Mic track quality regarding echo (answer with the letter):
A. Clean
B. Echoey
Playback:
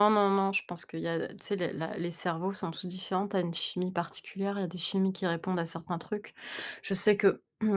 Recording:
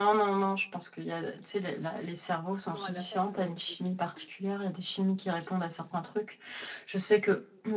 B